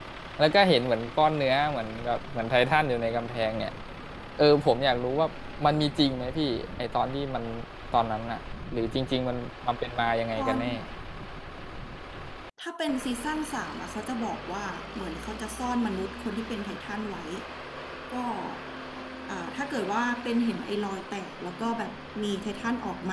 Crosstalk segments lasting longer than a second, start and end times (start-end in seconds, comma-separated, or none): none